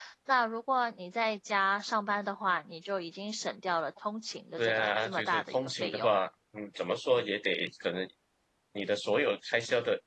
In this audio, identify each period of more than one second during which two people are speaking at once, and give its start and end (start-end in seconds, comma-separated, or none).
4.6-6.1